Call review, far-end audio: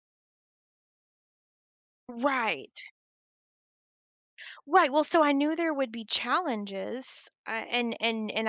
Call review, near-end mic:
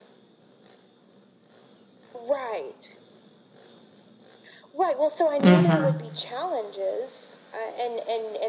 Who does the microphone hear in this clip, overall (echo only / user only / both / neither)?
both